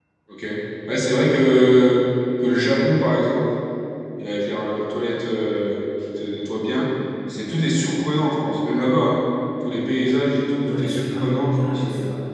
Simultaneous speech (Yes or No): Yes